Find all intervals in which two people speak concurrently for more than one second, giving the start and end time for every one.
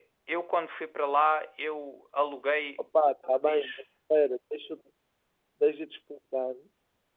none

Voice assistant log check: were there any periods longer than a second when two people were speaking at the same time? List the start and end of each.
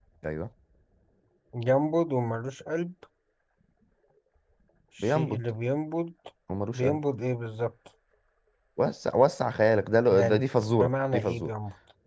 10.1-11.5

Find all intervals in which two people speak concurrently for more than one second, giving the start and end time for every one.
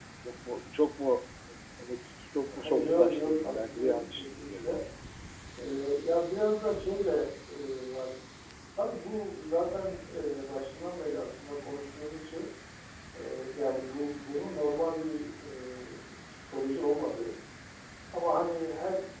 2.6-4.8

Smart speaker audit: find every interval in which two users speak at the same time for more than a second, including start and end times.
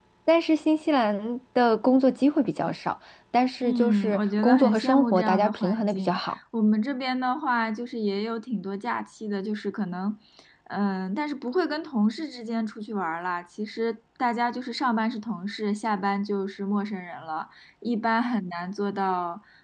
3.6-6.4

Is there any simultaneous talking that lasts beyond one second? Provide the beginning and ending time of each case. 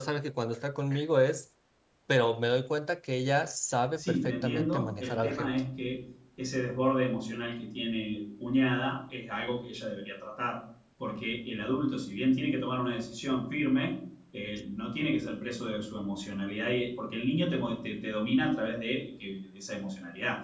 4.0-5.6

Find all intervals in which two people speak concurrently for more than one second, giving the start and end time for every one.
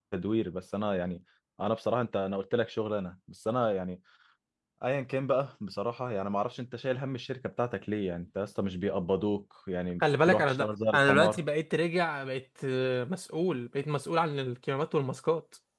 10.0-11.4

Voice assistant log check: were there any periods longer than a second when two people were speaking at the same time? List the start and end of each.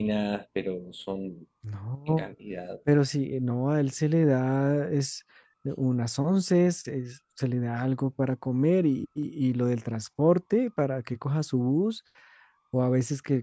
none

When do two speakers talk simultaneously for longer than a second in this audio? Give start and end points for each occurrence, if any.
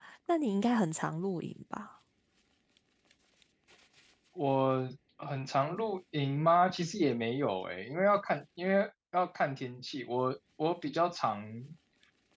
none

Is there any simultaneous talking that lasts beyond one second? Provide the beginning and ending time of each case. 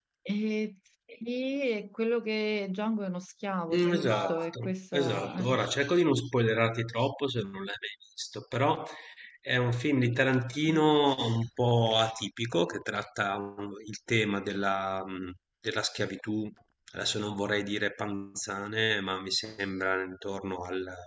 3.7-5.5

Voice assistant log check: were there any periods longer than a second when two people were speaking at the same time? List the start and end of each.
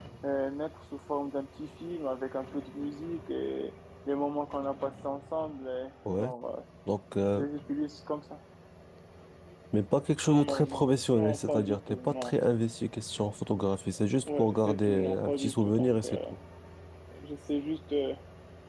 10.3-12.3, 14.2-16.2

